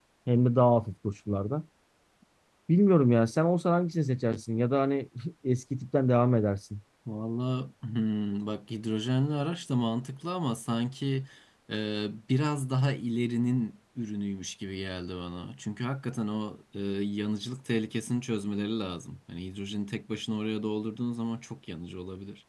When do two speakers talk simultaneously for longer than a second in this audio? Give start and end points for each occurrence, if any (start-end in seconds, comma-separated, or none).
none